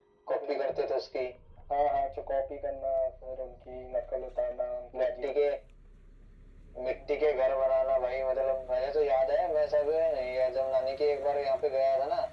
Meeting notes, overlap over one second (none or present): none